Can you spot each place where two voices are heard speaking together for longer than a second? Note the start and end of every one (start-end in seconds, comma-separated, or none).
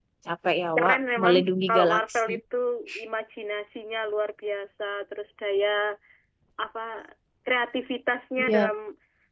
0.8-2.3